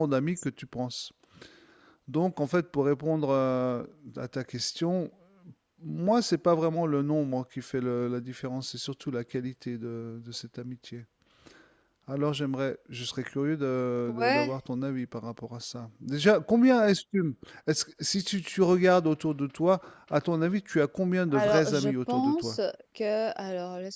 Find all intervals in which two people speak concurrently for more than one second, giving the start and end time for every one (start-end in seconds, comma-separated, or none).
21.3-22.6